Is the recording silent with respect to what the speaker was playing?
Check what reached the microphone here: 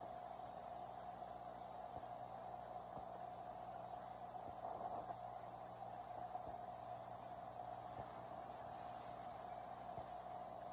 Yes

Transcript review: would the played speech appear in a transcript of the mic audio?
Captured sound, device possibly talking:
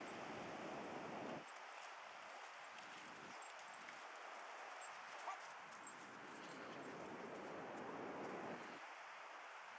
No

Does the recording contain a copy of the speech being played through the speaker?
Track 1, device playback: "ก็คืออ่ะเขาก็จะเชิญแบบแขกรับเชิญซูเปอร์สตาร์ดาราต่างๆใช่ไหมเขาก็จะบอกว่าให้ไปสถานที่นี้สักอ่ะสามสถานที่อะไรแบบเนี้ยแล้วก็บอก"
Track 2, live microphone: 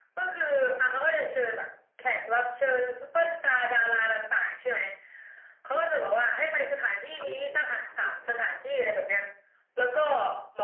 Yes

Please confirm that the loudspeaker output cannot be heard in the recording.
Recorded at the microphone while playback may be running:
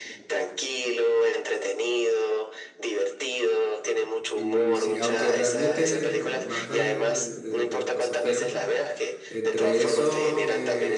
No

